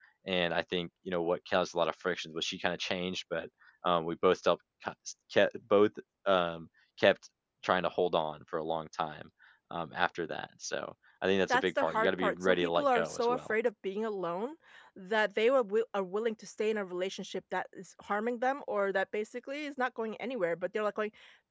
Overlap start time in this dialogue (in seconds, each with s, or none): 11.5 s